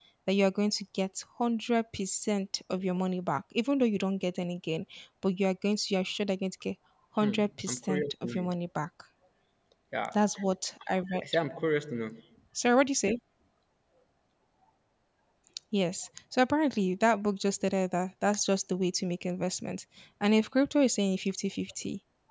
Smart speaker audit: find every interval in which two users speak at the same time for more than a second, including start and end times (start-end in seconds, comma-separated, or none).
7.2-8.5